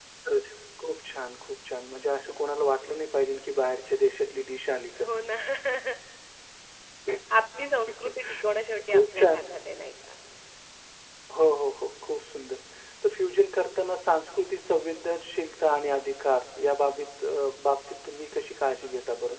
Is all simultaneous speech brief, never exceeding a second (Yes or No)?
Yes